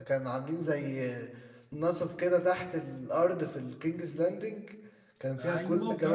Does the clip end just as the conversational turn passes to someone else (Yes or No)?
Yes